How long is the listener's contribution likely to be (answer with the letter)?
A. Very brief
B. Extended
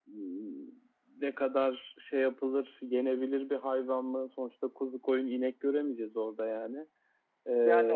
B